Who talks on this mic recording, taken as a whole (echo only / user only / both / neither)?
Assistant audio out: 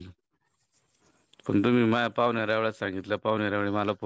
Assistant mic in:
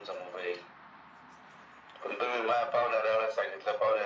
echo only